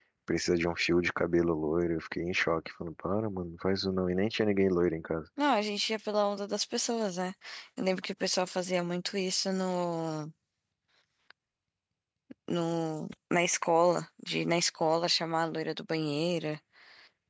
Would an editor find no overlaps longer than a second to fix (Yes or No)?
Yes